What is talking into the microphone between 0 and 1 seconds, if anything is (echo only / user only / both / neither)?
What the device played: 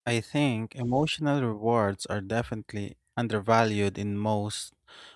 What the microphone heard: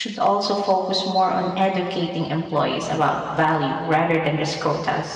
user only